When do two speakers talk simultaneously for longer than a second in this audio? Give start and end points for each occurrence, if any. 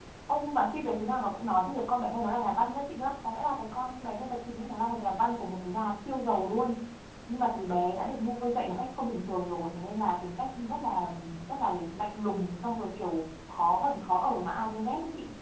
none

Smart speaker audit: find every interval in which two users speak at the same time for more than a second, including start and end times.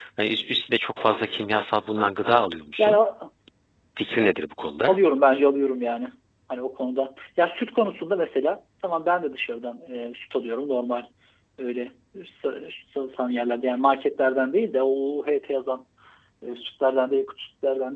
none

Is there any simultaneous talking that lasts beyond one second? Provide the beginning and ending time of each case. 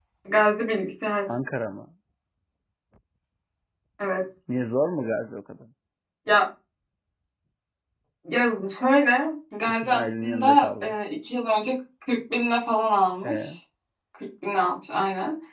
9.7-10.9

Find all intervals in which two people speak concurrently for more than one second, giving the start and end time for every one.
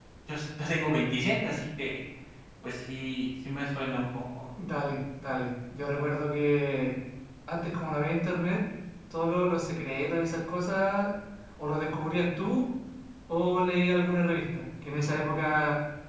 none

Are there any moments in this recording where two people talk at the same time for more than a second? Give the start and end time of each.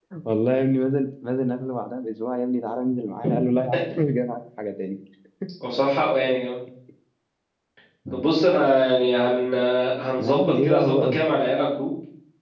10.2-11.4

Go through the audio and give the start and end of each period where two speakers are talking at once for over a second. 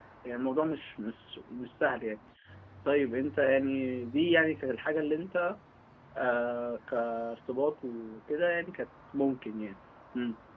none

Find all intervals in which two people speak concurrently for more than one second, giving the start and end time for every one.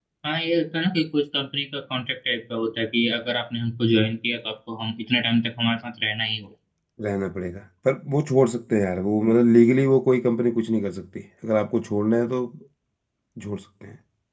none

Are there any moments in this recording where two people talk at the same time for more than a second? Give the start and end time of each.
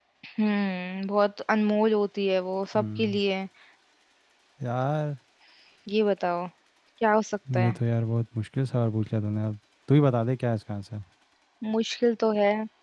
none

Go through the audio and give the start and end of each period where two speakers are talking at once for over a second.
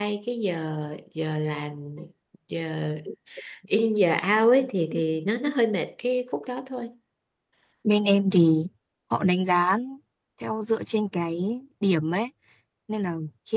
none

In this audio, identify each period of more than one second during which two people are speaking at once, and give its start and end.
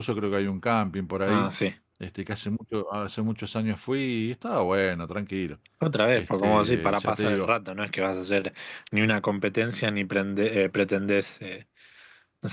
6.2-7.5

